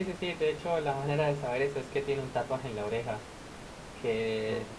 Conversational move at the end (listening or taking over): listening